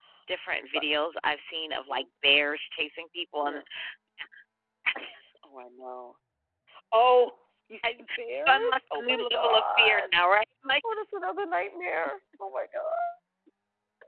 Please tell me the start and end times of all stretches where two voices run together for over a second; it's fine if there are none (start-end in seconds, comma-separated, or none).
8.5-10.1